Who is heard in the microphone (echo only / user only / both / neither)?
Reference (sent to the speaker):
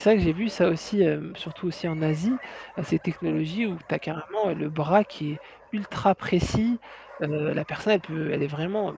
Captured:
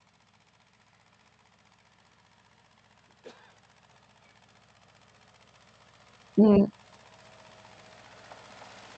user only